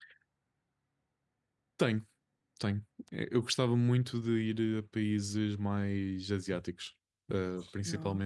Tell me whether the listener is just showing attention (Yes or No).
Yes